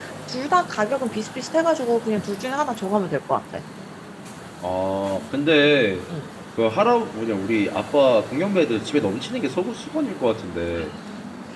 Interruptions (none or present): none